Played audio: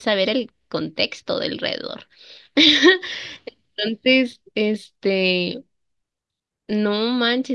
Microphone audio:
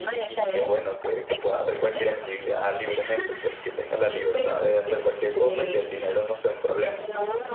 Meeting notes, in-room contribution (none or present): present